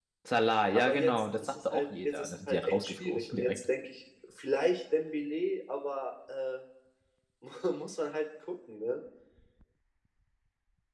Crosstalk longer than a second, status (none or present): present